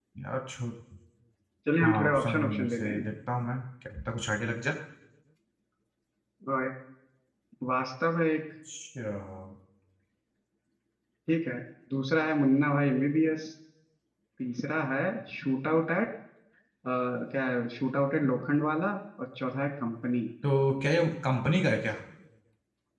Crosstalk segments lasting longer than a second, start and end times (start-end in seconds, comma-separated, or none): 1.8-3.1